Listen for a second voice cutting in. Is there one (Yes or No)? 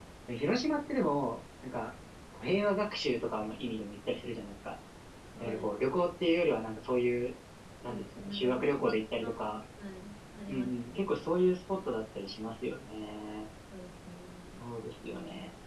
Yes